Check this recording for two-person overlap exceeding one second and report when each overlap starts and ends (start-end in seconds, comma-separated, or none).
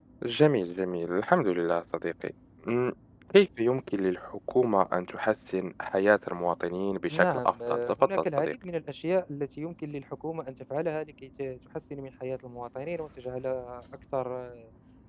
7.1-8.5